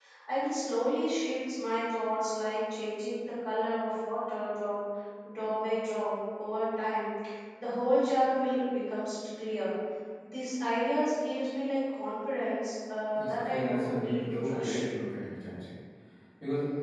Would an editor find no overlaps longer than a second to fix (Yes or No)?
No